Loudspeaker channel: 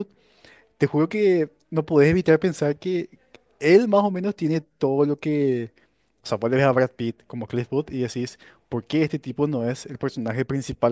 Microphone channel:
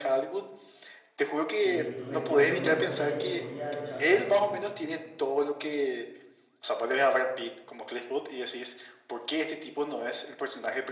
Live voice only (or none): el recuento que hacen de la historia de Charles Manson.